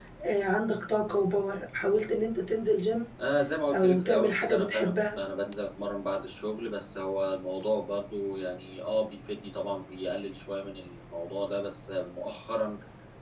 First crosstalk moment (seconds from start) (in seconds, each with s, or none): 3.7 s